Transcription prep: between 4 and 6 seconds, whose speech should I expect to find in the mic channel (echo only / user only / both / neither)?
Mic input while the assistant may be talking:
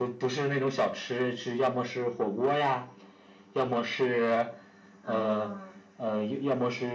both